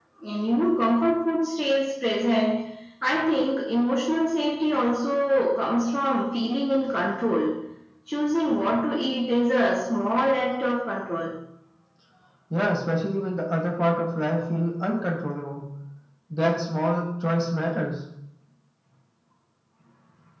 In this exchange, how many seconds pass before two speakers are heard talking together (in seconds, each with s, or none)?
none